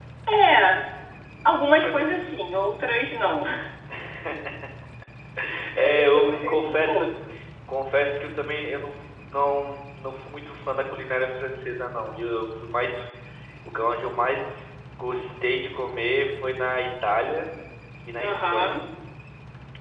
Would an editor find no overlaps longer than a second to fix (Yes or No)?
No